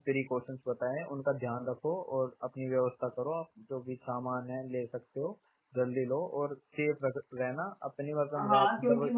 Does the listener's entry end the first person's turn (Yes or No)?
Yes